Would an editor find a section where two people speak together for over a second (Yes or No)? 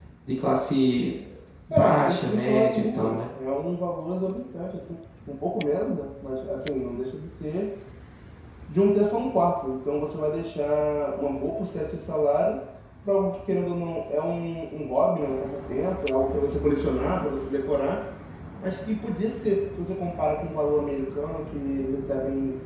Yes